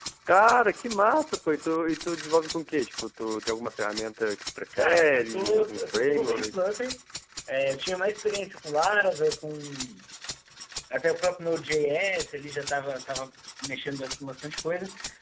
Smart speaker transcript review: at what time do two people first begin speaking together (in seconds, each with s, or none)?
4.7 s